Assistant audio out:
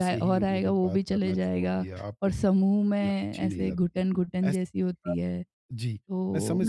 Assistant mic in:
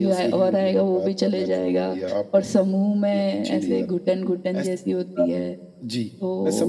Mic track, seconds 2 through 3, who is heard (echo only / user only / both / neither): echo only